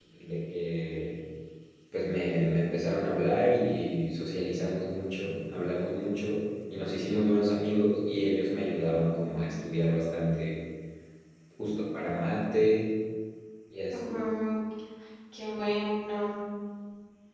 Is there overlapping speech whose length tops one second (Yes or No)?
No